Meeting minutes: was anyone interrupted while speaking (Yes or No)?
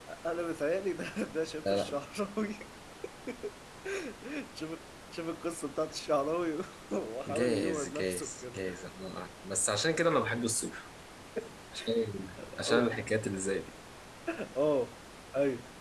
Yes